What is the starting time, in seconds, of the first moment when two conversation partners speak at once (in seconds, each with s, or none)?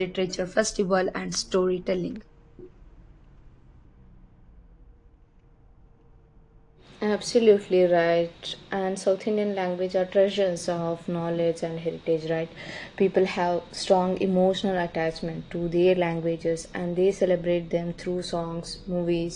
none